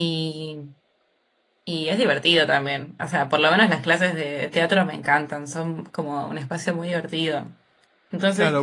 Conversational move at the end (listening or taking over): taking over